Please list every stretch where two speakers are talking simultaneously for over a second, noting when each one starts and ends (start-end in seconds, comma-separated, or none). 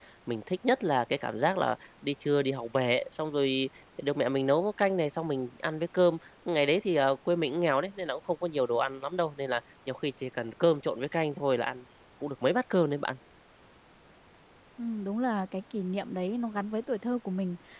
none